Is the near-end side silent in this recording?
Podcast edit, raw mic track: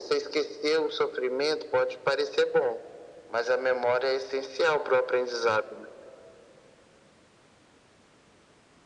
Yes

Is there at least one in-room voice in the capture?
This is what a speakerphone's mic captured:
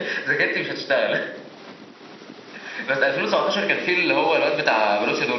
No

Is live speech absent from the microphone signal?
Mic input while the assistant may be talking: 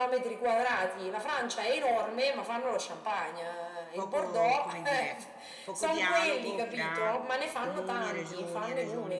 No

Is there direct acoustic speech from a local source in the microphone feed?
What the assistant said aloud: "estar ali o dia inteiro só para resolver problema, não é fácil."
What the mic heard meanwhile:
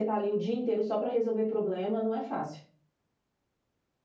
No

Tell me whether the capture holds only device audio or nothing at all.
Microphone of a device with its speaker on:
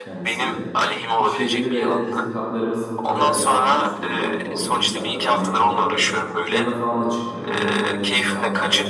No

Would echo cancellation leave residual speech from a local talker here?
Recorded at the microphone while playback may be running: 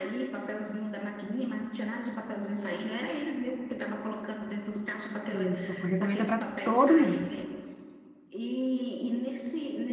Yes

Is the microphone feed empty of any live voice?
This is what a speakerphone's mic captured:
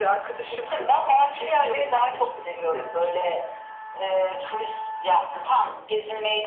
Yes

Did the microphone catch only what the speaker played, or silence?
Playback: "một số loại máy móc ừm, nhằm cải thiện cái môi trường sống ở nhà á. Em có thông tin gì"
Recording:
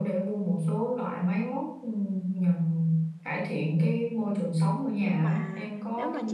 No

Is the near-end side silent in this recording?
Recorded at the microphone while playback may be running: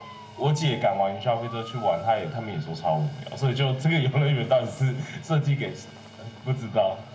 Yes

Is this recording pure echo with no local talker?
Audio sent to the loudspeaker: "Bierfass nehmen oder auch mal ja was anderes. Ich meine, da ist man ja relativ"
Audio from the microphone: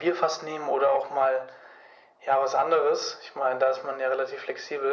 Yes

